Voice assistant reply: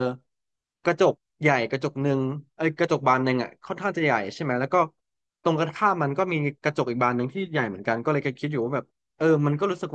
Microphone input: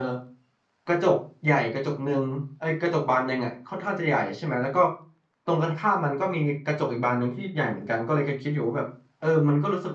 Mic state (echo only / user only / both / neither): echo only